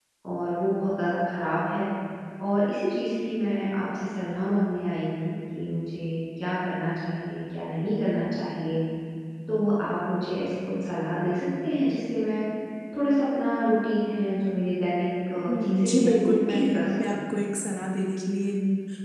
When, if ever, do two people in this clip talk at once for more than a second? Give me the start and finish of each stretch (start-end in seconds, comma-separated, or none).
15.5-17.2